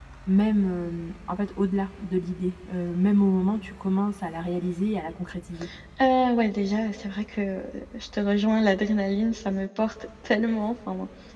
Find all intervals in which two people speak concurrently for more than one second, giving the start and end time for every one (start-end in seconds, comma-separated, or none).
none